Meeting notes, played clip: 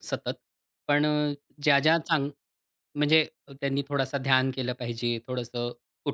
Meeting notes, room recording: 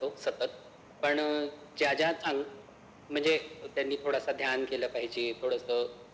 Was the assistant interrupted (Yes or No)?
No